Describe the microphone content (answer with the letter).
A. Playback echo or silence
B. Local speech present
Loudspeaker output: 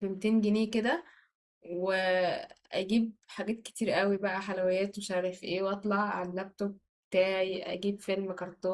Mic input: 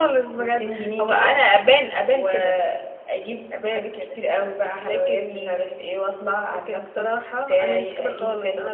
B